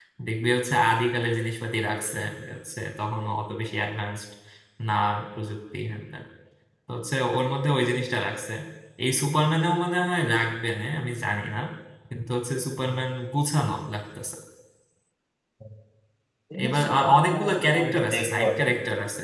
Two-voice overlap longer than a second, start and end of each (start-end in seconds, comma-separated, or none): 16.6-18.5